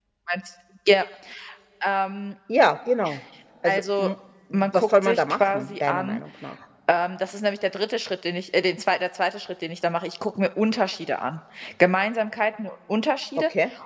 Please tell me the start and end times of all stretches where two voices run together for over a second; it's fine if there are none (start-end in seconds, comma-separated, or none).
4.5-6.2